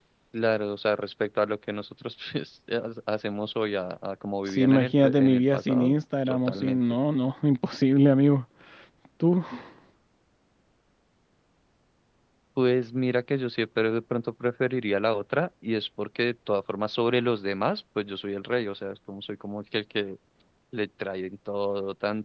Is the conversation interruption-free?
No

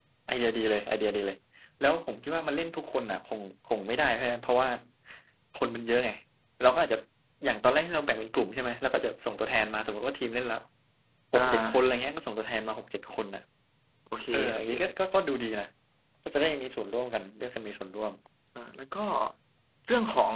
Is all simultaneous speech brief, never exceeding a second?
Yes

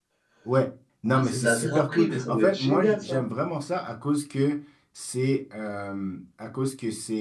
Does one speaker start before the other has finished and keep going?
Yes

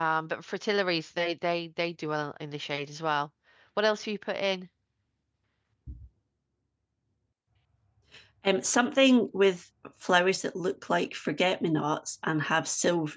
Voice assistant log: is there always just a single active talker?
Yes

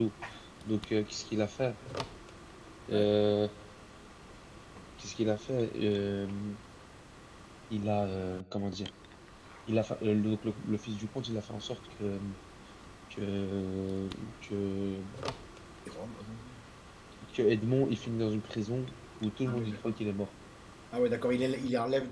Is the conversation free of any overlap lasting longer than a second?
Yes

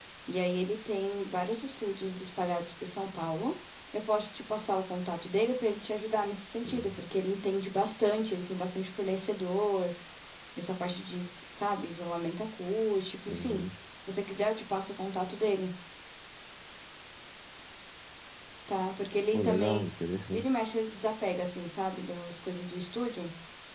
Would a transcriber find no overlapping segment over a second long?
Yes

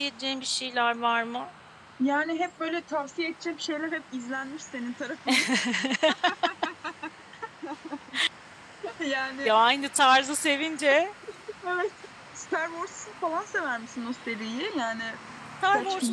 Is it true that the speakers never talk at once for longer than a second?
Yes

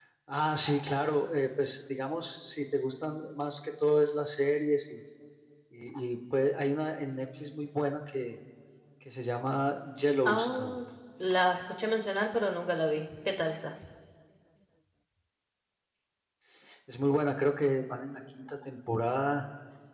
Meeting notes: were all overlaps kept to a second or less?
Yes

